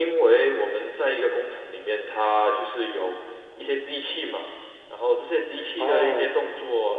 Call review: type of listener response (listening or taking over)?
listening